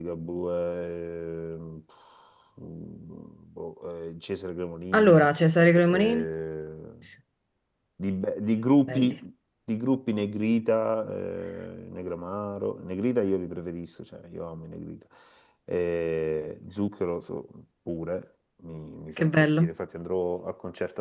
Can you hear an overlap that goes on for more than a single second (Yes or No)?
No